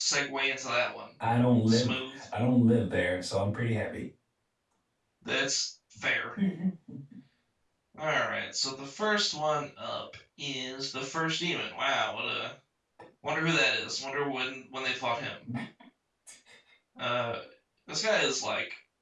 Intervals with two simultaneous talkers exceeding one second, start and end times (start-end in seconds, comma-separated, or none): none